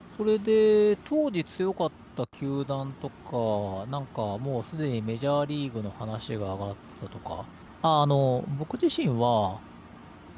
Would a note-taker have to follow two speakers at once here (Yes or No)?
No